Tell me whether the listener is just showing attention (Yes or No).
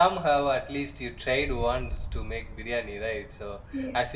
Yes